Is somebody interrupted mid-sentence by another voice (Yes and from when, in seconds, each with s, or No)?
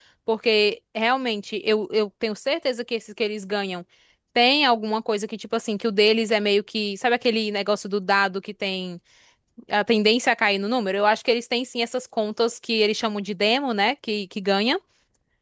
No